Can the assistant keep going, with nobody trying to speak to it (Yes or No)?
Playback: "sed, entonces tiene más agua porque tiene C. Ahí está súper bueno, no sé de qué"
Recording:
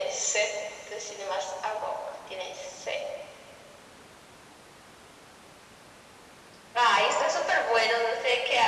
Yes